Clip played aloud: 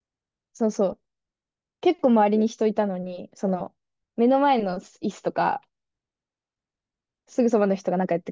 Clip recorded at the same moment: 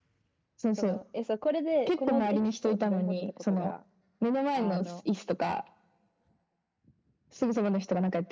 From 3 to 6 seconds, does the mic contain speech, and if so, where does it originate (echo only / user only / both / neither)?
both